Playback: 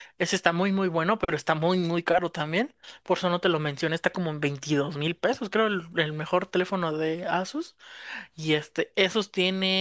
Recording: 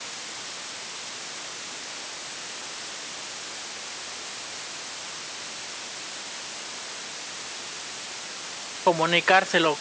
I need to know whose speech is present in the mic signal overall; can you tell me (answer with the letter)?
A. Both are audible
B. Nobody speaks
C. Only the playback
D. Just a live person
D